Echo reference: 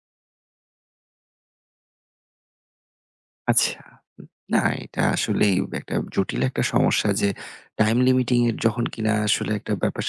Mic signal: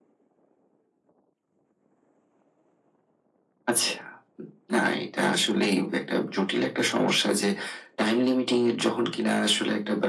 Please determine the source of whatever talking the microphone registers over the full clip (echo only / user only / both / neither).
echo only